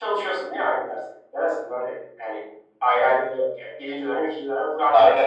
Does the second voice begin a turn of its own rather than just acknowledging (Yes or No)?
Yes